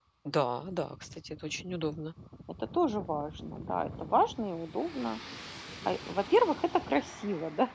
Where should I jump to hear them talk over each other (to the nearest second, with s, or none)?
none